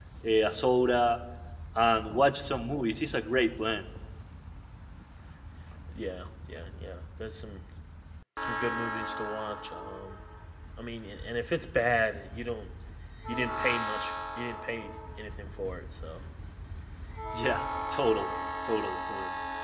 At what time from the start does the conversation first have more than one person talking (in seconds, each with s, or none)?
none